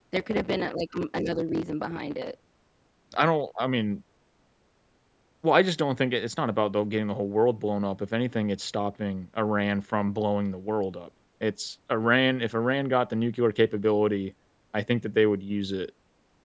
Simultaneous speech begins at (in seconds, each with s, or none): none